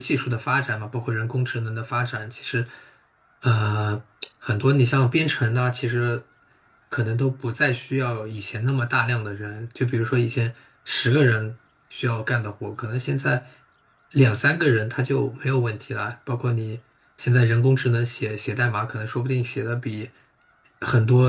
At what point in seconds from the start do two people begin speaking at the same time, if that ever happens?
none

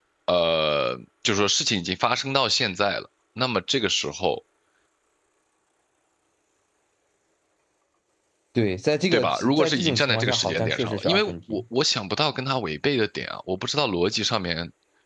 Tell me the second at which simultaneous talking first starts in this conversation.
9.1 s

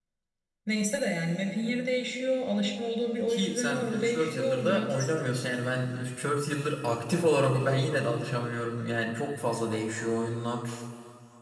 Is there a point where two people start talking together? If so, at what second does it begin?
3.3 s

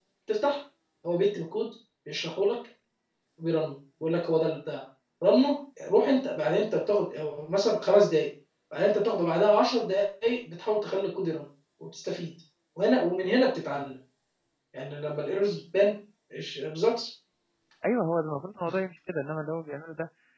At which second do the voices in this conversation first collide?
none

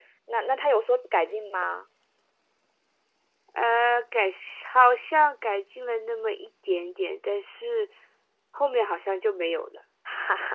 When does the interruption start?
none

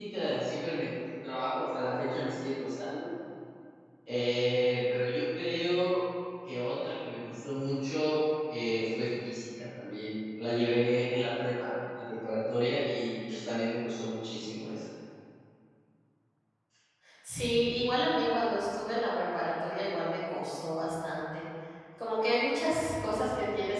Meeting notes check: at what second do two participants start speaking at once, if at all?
none

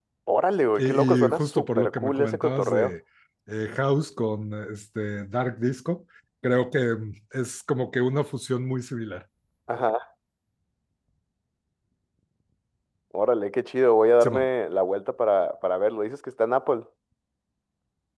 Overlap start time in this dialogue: 0.8 s

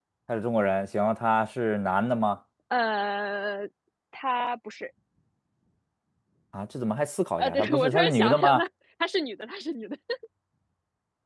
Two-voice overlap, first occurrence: 7.4 s

